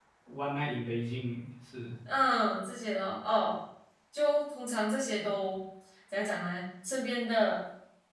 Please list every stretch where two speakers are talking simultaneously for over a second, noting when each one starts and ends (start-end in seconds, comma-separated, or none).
none